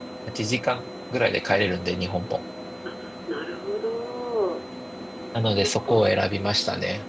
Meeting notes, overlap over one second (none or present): none